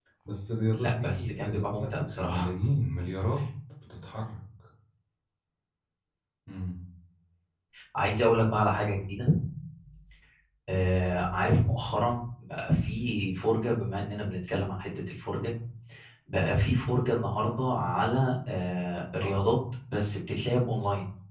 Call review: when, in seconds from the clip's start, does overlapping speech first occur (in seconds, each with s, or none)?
0.7 s